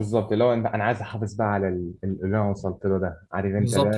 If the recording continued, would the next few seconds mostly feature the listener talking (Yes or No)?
Yes